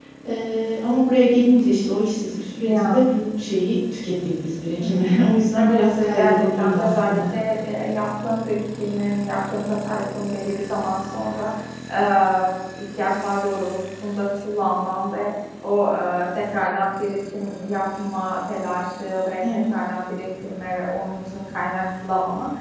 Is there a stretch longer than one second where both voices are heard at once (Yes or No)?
Yes